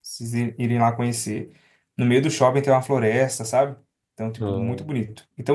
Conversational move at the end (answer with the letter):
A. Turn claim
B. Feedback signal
B